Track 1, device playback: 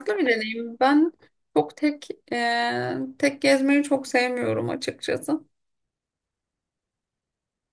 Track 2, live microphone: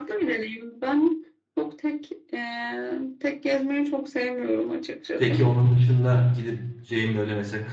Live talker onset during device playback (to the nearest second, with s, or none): 5 s